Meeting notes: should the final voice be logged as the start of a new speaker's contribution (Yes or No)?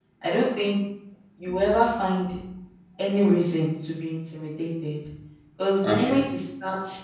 No